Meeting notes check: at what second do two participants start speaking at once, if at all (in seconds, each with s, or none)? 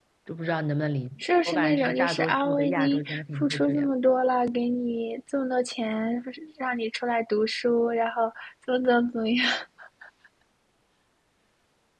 1.2 s